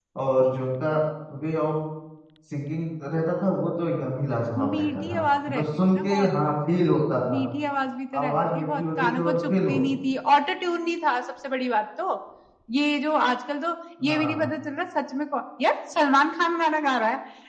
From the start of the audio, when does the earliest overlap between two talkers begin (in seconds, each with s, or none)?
4.6 s